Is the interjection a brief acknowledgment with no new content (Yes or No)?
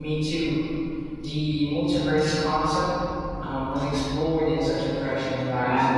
No